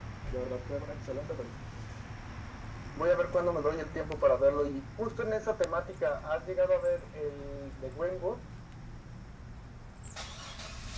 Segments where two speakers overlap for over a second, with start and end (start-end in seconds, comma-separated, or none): none